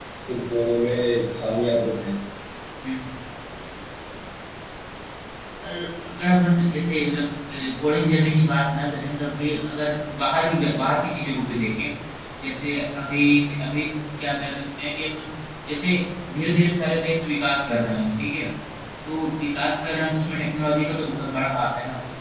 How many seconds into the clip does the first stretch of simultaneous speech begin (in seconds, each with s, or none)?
none